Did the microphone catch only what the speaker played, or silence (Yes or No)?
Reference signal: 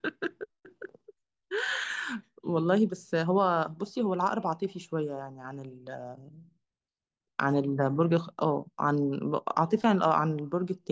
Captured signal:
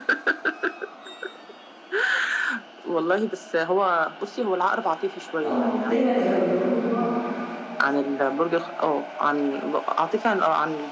No